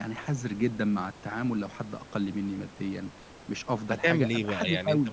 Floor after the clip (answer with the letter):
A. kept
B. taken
B